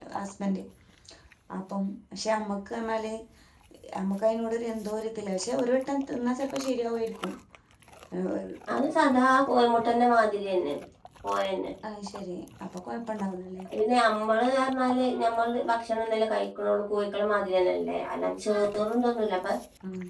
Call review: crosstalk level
none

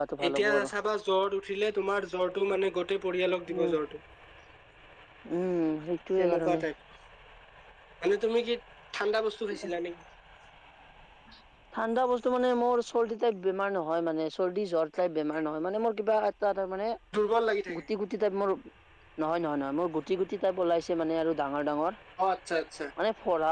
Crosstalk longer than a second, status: none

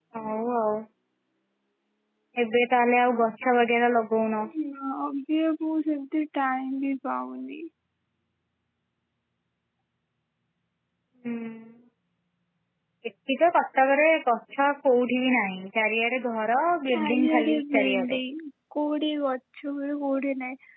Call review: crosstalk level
present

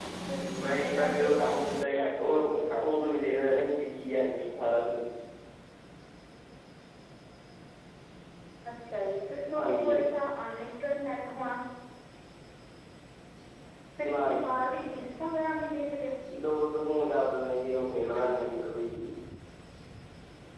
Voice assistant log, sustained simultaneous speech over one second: present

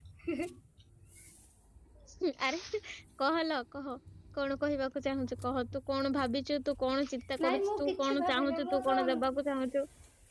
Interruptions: present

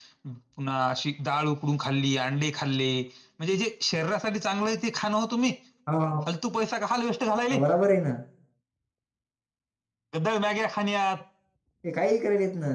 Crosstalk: none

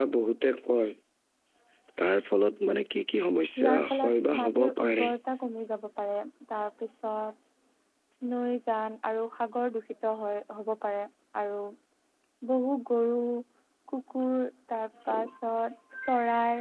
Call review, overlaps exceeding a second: present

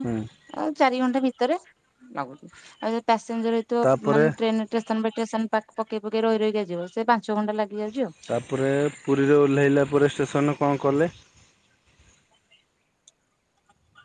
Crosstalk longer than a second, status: none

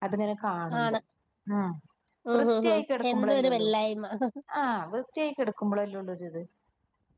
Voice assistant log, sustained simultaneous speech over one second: present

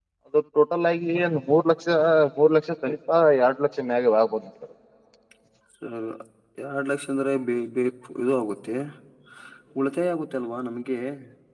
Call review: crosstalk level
none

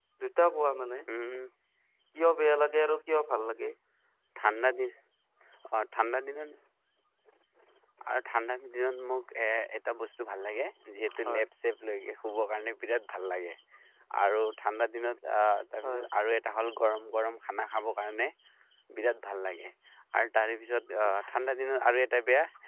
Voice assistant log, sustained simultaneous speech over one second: none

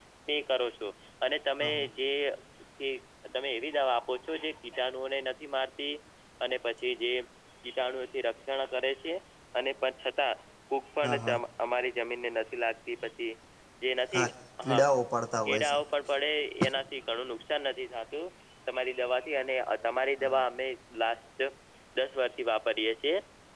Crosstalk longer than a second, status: none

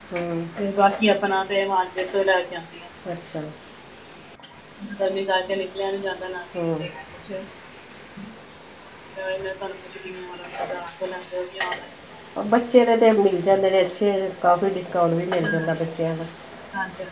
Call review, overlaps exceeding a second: none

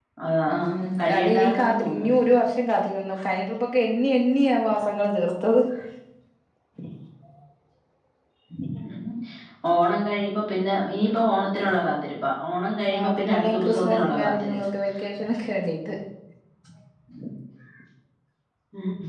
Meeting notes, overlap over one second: present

